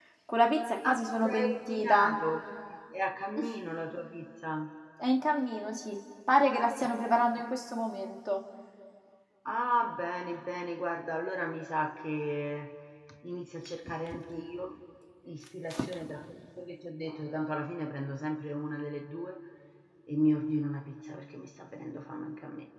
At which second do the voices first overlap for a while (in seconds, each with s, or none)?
0.8 s